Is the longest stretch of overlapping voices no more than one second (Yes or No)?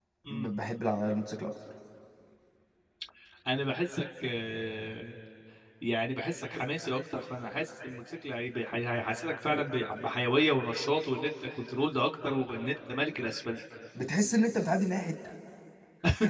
Yes